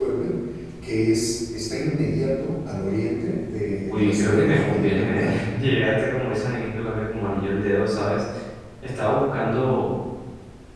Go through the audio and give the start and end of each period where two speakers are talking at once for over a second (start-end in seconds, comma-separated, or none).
3.8-5.4